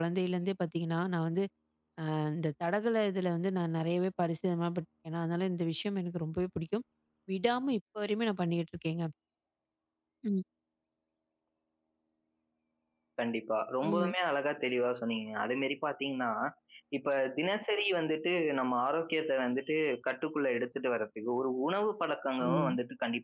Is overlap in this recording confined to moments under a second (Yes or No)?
Yes